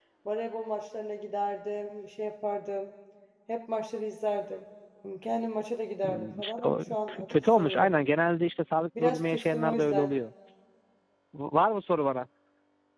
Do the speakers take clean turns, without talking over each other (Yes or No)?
No